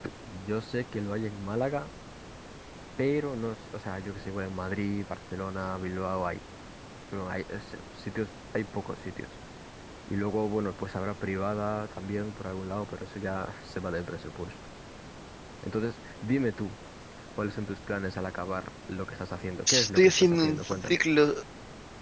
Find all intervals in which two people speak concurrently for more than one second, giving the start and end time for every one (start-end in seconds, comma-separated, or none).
19.7-21.0